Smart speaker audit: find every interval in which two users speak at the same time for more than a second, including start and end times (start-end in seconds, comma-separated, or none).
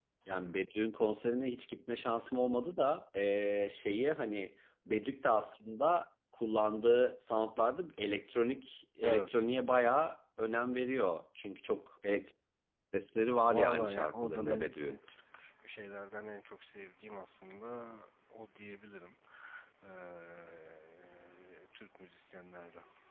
13.5-15.0